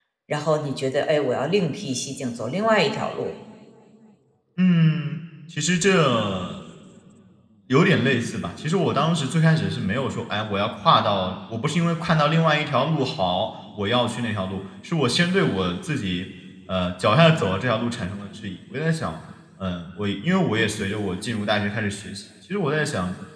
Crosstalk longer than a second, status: none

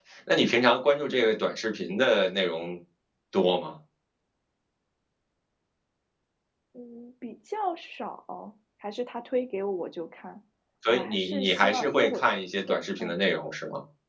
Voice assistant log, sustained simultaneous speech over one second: present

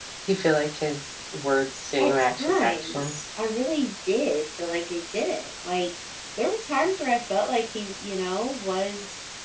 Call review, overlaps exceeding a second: present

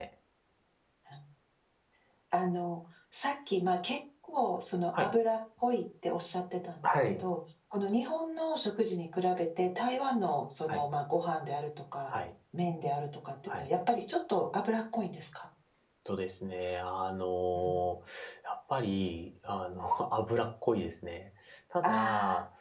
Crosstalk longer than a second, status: none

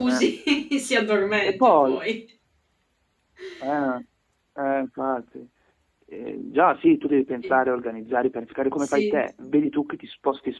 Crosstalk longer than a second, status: none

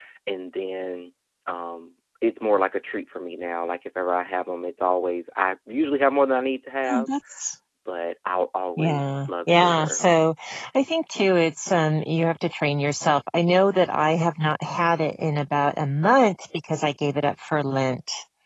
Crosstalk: present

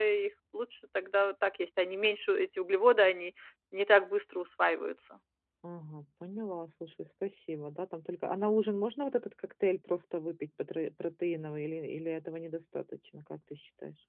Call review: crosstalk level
none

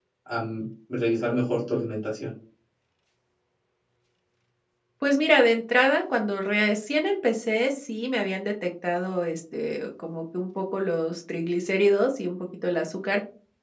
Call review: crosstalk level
none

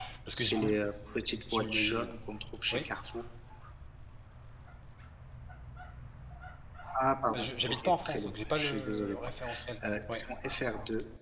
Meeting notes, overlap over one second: present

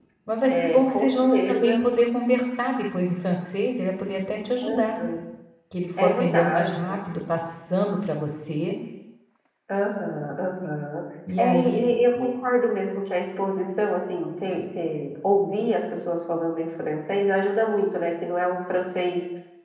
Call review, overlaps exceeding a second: present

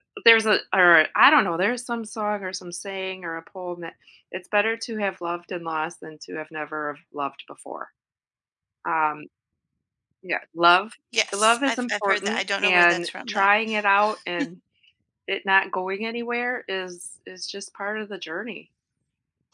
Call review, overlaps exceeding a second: present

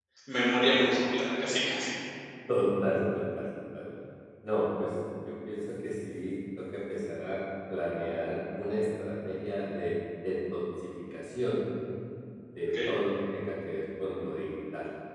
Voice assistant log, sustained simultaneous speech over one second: none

